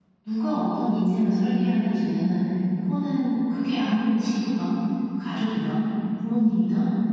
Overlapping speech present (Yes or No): No